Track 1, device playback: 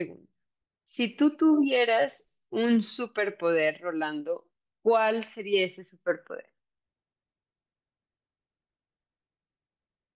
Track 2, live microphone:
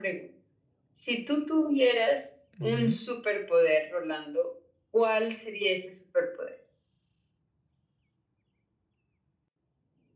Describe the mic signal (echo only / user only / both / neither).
both